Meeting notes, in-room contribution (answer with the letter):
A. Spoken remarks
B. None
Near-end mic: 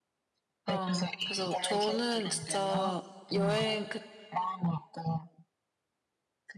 A